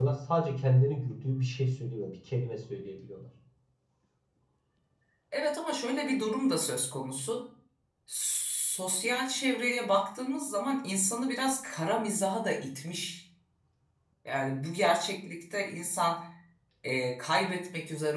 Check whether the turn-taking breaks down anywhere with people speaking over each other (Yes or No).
No